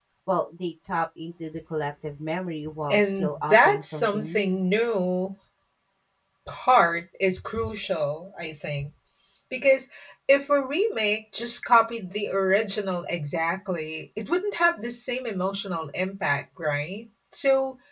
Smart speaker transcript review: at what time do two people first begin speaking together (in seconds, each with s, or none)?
2.9 s